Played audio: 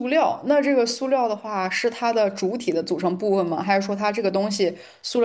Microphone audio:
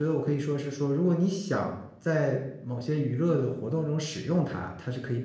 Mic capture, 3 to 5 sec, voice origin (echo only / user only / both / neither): user only